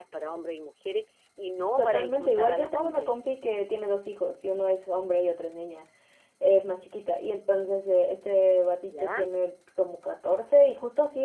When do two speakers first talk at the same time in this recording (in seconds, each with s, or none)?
1.8 s